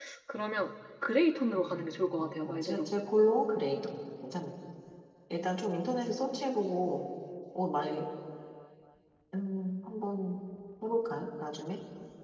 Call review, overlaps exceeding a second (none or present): present